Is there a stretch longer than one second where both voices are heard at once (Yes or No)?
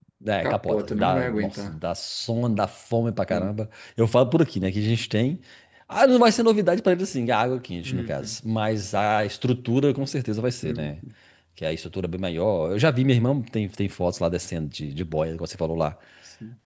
Yes